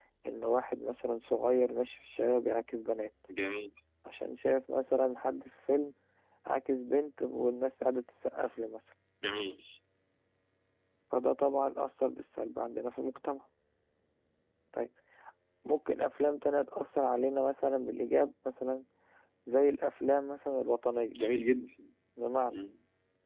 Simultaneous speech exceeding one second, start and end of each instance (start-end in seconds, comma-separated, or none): none